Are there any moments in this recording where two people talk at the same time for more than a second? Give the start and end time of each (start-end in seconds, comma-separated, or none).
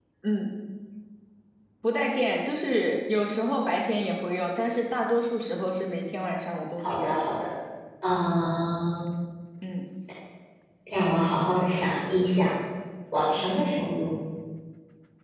none